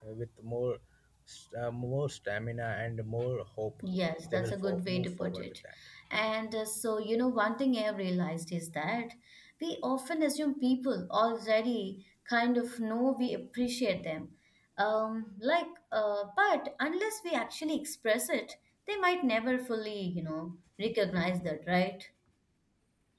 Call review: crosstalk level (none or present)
present